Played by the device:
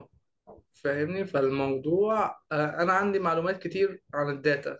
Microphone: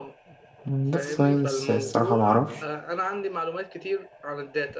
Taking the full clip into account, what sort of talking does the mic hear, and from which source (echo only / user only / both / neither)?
both